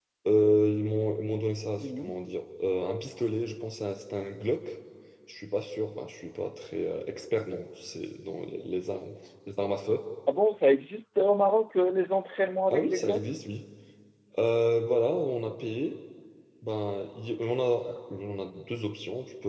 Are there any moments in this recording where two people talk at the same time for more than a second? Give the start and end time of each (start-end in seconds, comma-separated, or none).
none